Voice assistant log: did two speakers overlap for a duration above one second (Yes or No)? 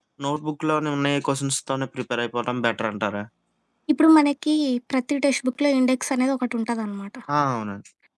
No